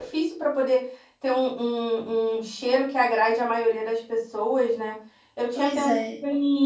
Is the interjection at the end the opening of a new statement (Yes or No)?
No